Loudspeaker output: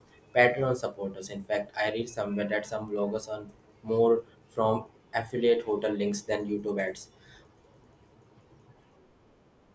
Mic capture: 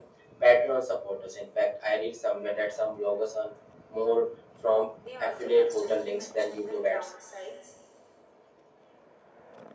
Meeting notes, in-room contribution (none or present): present